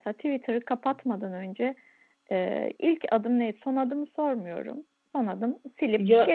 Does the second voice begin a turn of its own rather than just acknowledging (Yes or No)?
No